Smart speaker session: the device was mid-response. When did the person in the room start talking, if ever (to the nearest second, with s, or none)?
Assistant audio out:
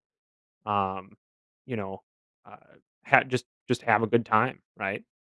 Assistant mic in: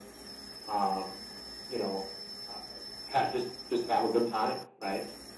none